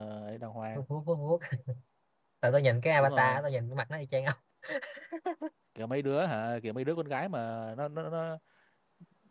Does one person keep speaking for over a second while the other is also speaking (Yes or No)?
No